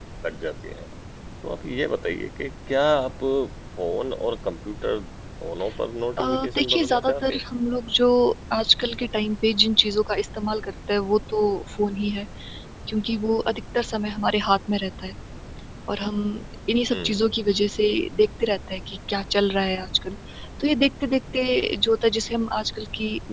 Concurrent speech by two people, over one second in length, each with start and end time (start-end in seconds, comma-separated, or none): 6.2-7.4